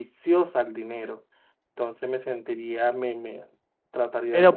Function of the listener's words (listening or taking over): taking over